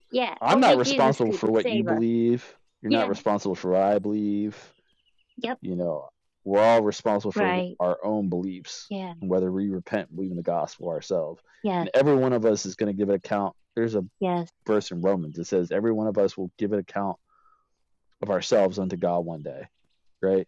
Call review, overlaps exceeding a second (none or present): present